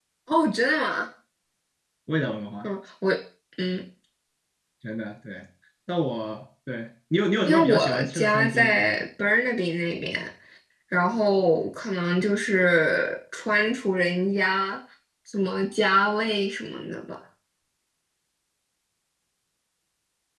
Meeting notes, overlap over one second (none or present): present